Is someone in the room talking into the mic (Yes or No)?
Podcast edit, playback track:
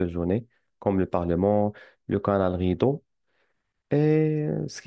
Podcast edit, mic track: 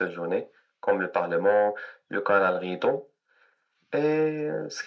No